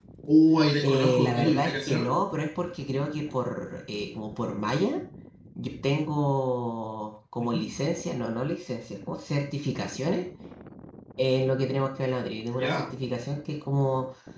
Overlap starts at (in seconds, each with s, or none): 0.8 s